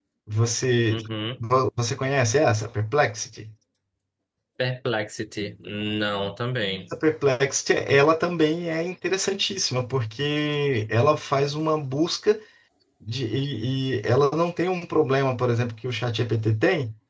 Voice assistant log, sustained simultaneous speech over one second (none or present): none